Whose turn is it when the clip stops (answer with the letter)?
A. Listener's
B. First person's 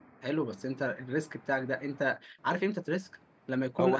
A